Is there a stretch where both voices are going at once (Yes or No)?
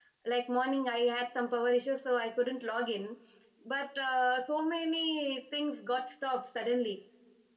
No